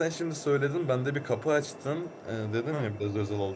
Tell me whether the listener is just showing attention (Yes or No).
Yes